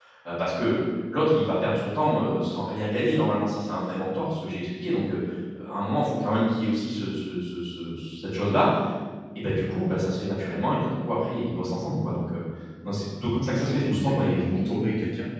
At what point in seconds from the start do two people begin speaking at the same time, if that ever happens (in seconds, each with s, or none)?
13.4 s